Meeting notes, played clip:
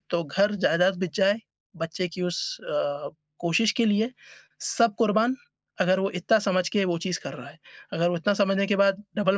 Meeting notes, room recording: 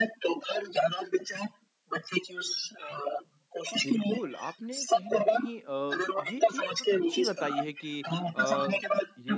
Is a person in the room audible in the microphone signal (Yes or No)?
Yes